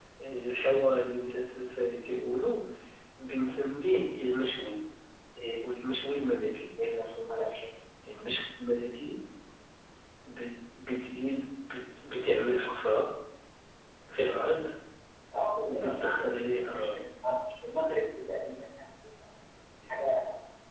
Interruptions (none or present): present